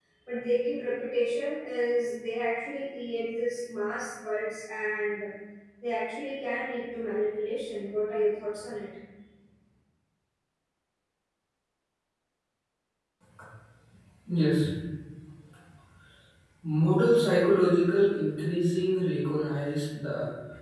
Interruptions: none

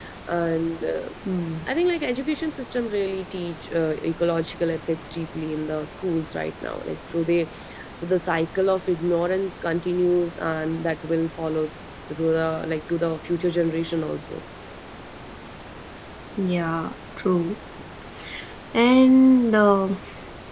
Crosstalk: none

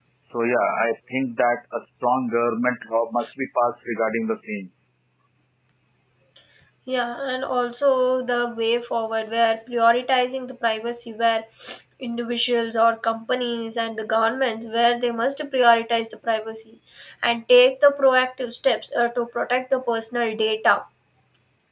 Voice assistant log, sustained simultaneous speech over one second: none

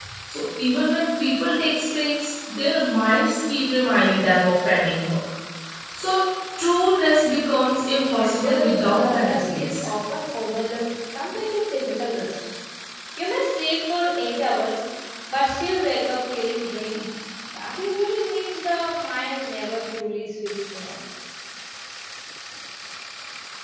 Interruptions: present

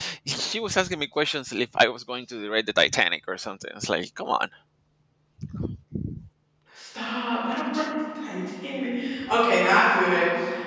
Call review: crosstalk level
none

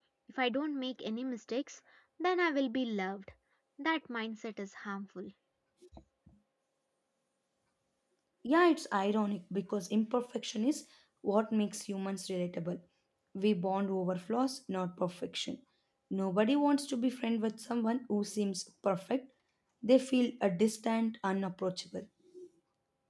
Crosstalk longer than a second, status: none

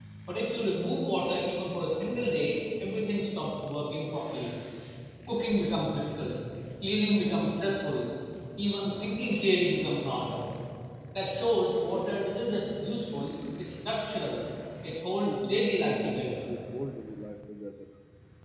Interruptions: present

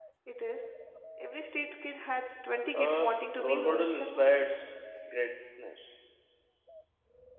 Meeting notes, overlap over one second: present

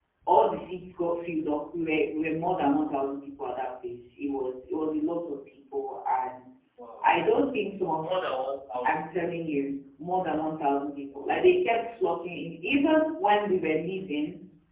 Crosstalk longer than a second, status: none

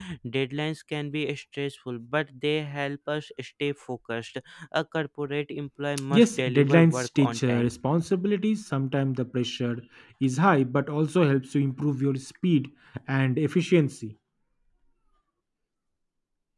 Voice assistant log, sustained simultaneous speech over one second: present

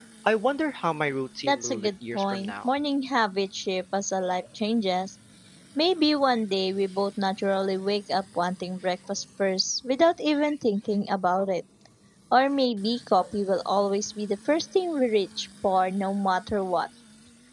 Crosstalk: present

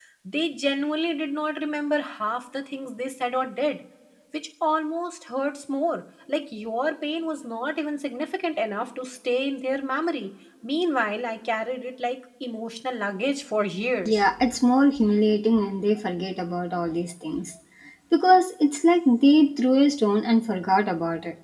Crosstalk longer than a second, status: none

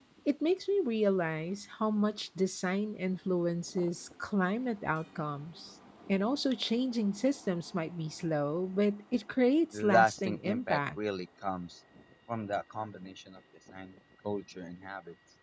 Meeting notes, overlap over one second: present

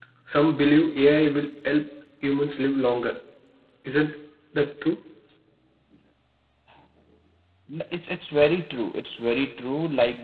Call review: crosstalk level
none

